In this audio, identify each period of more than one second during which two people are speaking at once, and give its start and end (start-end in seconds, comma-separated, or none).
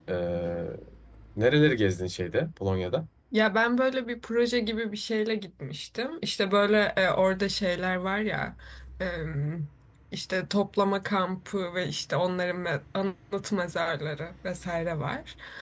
none